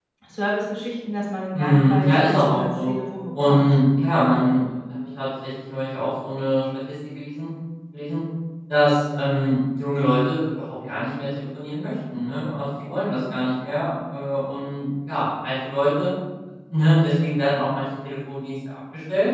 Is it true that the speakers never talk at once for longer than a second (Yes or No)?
No